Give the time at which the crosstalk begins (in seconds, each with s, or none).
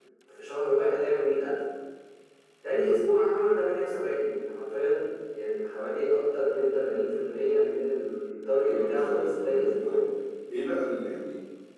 8.6 s